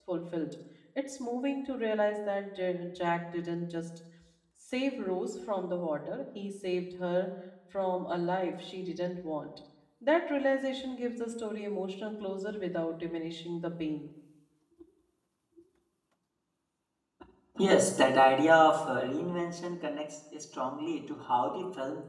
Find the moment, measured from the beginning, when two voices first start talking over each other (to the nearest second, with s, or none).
none